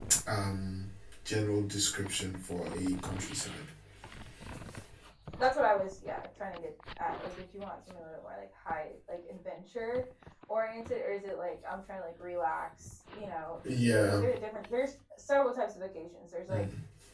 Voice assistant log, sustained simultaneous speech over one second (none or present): none